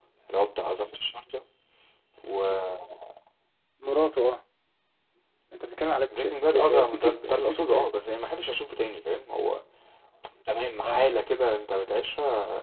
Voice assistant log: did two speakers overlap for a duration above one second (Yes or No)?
Yes